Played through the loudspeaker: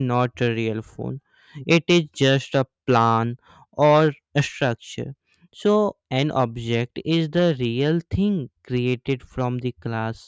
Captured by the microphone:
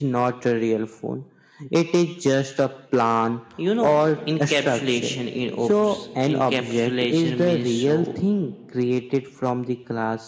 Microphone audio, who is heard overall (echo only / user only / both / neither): both